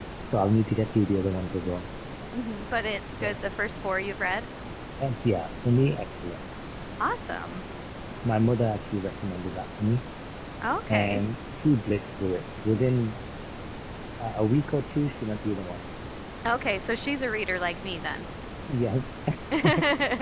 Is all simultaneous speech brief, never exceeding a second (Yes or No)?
Yes